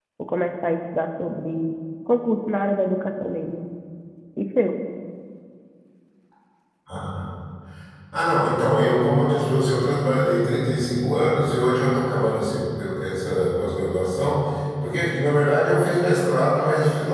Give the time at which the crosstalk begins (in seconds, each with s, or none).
none